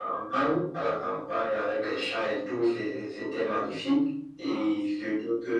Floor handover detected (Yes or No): No